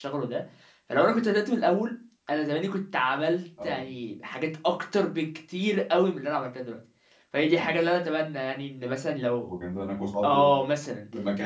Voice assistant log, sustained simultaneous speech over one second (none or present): none